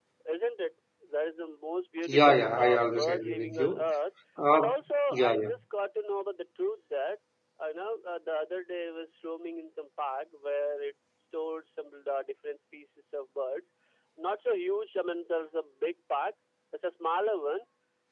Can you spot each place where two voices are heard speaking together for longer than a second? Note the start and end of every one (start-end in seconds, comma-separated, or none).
2.1-3.9